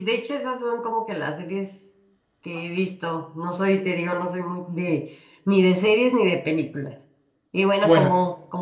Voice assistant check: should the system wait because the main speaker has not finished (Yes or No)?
Yes